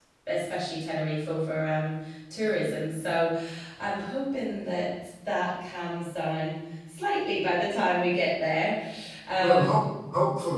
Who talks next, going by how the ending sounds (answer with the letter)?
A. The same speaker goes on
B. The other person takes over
B